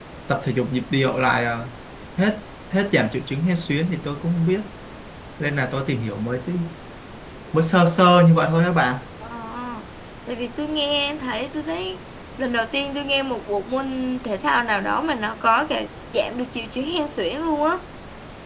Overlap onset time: none

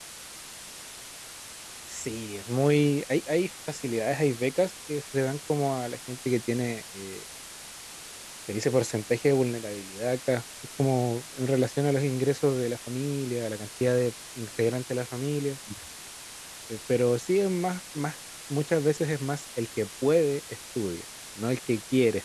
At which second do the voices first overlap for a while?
none

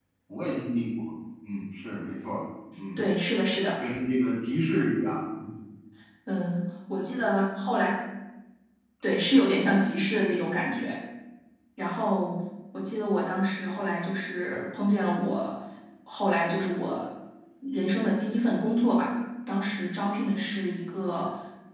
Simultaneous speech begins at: none

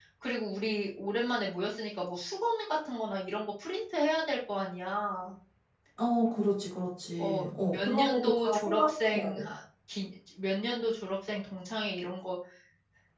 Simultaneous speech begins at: 7 s

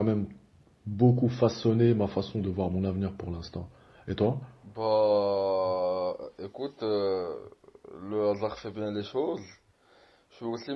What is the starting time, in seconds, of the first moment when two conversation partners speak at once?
none

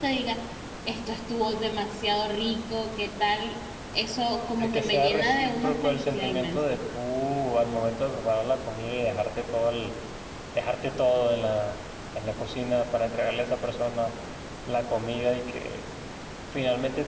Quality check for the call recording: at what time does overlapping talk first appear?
5 s

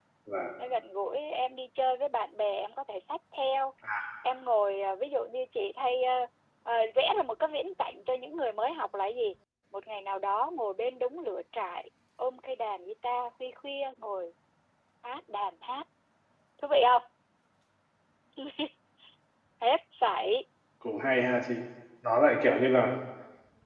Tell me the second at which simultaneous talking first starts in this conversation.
none

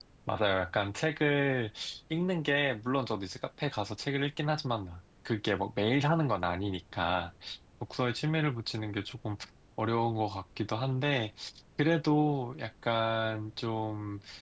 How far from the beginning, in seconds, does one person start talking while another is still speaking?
none

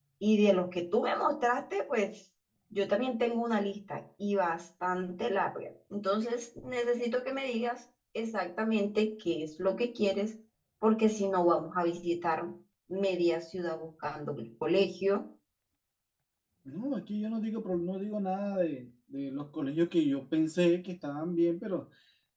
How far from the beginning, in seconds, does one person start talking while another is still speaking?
none

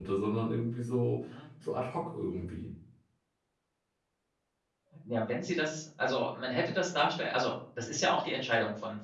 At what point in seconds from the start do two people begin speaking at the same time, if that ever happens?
none

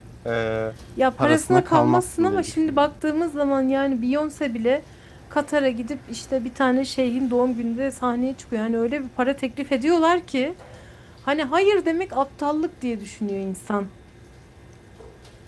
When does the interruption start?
1 s

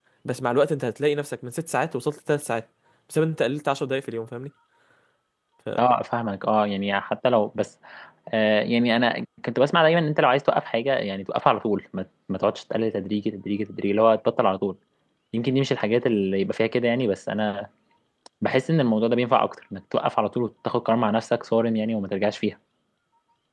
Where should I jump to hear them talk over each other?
none

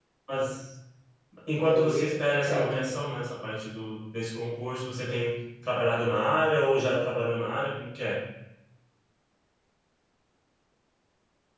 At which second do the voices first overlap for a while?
2 s

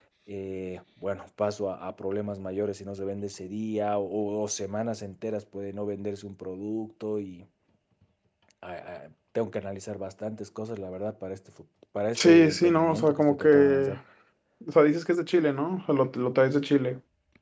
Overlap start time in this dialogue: 12 s

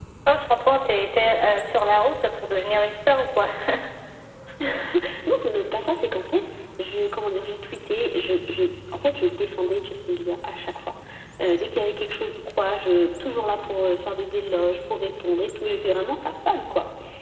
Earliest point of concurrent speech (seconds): none

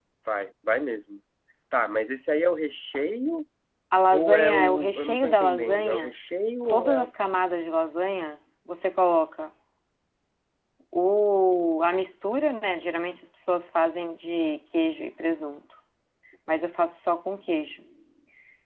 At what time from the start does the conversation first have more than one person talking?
4 s

